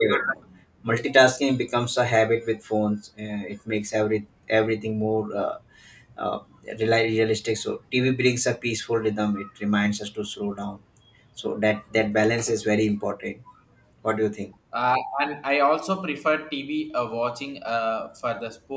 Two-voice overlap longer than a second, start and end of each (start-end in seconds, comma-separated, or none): none